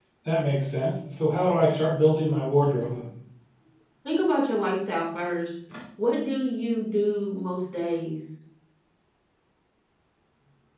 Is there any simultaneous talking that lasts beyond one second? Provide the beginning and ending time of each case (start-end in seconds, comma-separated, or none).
none